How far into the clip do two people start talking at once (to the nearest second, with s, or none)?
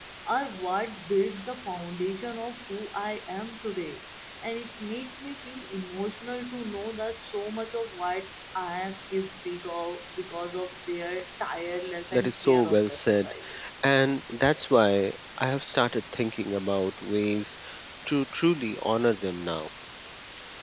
12 s